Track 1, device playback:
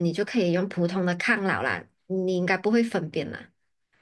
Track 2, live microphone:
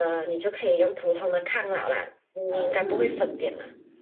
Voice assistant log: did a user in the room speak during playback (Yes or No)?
Yes